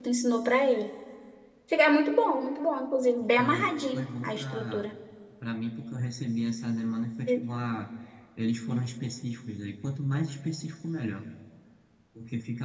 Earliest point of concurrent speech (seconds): 3.4 s

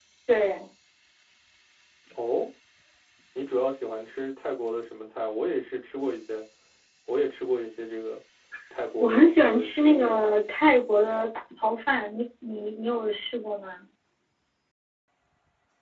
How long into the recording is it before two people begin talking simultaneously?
9.0 s

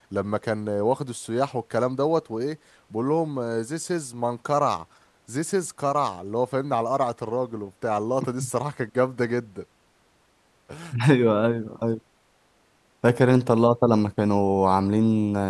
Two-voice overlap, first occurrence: none

